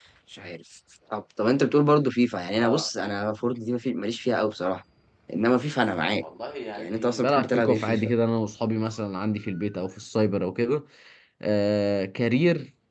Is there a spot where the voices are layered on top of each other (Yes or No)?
Yes